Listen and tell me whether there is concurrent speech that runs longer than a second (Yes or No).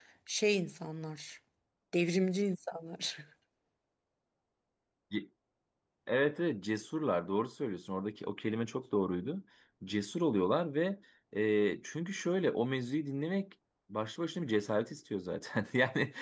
No